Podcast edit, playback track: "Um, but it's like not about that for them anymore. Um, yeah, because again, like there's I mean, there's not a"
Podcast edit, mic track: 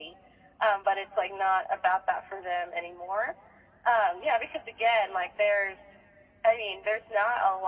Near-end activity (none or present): none